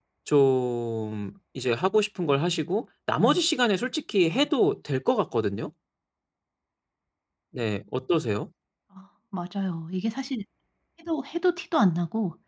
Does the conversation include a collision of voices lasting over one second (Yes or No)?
No